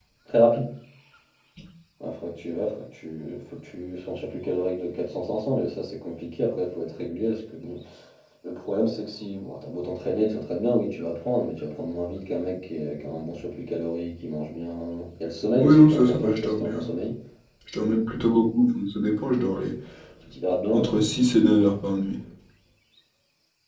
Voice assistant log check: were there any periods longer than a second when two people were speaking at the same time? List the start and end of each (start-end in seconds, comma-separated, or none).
15.6-16.8